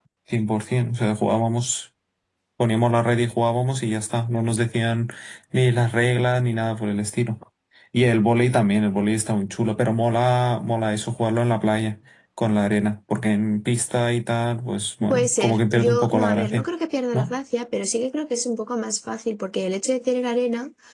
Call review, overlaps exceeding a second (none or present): present